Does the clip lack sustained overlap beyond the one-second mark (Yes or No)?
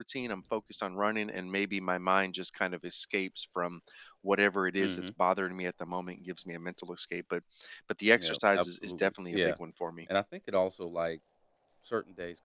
No